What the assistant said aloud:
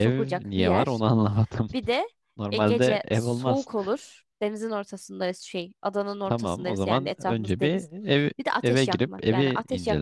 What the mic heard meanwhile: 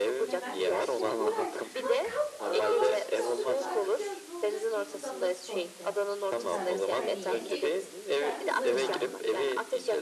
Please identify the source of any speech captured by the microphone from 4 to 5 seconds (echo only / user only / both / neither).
both